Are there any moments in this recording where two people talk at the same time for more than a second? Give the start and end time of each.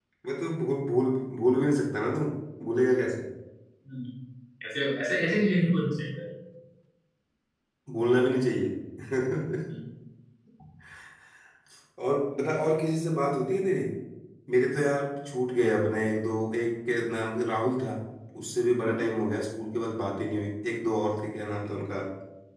none

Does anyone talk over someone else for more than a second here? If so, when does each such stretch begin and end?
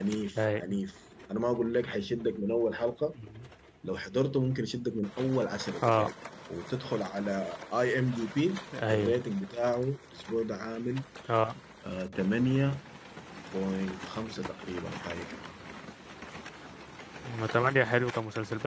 none

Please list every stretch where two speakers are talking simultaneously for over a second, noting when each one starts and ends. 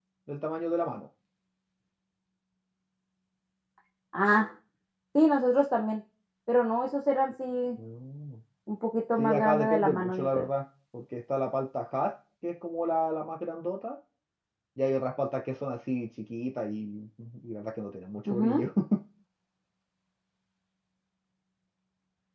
9.2-10.5

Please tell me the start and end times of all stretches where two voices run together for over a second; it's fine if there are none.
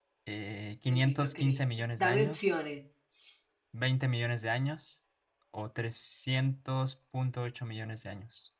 0.9-2.6

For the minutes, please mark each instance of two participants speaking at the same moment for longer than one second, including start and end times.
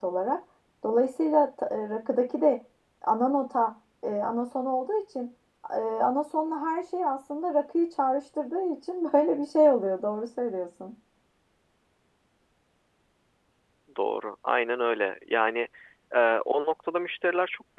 none

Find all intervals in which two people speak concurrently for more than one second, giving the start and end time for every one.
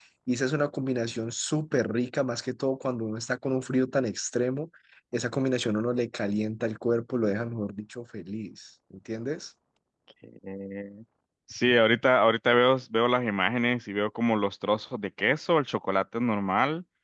none

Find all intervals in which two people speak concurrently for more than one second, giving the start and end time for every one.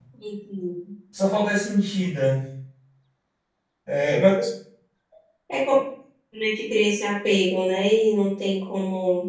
none

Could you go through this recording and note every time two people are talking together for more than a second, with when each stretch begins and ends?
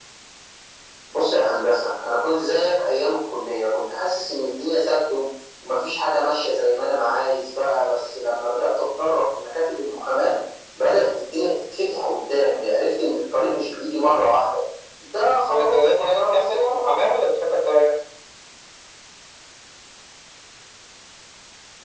15.5-17.0

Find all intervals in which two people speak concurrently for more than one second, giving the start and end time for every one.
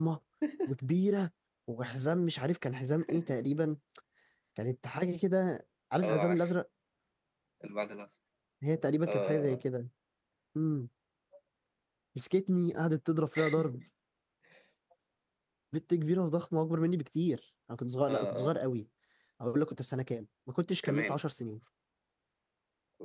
none

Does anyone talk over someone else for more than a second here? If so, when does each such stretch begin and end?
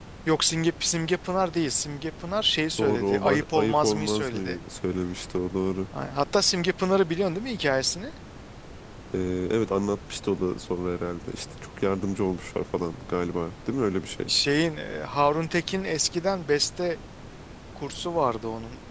2.8-4.6

